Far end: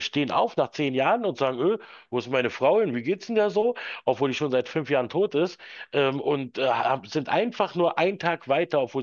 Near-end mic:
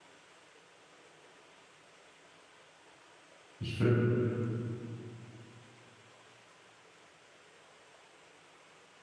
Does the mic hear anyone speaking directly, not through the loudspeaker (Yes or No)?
Yes